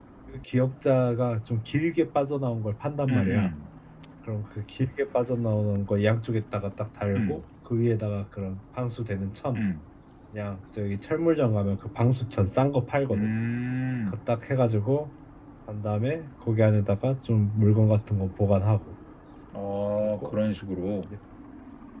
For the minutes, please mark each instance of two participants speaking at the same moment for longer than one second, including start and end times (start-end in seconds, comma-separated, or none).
none